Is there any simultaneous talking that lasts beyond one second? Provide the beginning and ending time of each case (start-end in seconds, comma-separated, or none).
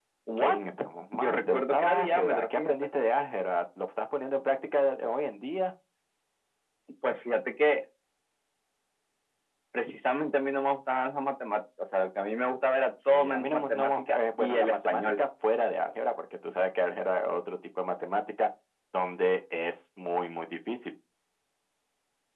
1.1-2.7, 13.0-15.1